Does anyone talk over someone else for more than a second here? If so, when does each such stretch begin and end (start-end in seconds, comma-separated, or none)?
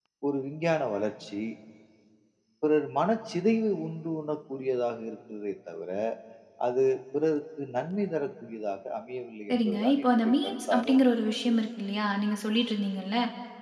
9.5-11.0